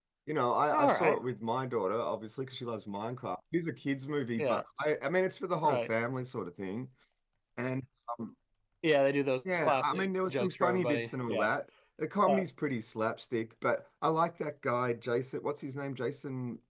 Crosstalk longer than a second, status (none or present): present